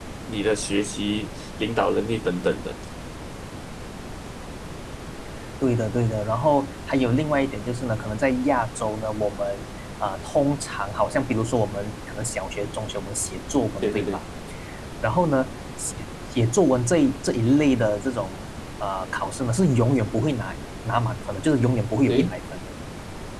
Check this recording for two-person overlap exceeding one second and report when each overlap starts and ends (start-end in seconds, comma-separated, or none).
none